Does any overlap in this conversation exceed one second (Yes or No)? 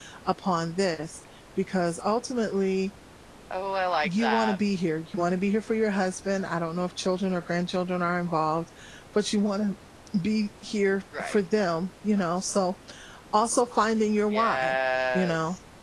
No